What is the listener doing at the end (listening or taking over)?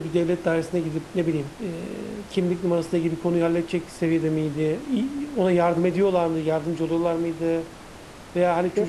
listening